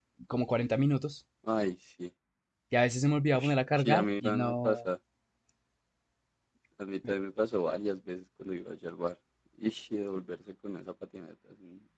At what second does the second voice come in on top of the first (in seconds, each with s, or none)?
3.3 s